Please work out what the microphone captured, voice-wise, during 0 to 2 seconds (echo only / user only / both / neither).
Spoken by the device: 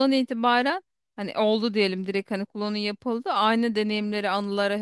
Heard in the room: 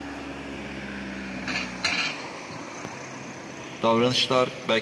neither